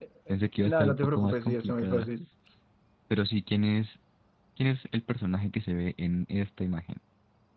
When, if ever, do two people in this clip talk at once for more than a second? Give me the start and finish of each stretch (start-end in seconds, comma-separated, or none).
0.6-2.1